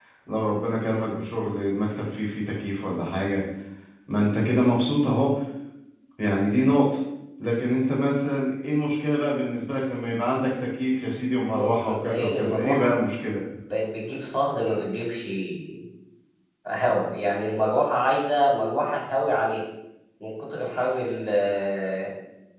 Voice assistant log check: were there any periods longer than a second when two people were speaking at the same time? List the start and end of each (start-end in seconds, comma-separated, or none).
11.6-12.9